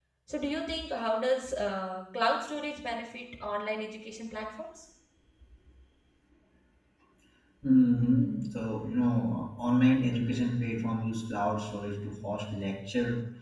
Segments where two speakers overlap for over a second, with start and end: none

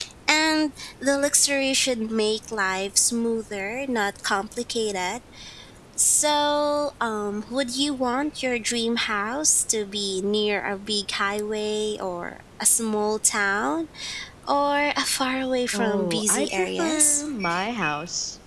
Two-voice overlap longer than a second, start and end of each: 15.7-17.2

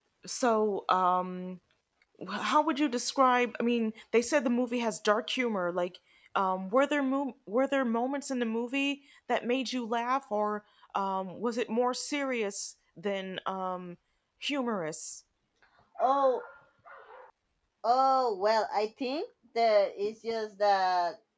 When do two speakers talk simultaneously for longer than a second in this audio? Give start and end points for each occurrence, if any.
none

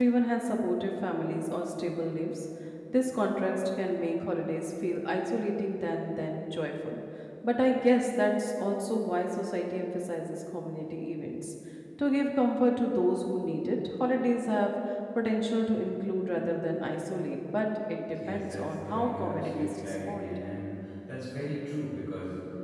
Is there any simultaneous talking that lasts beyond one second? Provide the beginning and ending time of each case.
18.3-20.3

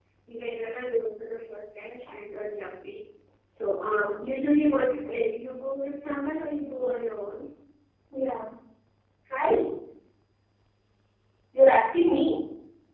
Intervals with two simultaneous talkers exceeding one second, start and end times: none

